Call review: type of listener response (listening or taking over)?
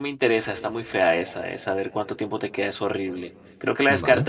listening